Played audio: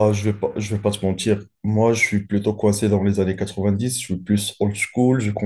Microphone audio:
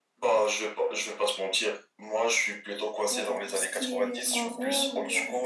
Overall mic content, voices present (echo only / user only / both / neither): both